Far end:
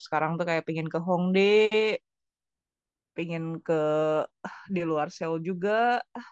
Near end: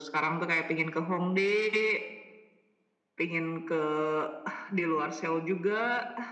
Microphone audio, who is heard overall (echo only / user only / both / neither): echo only